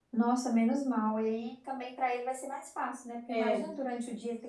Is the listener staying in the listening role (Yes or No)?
Yes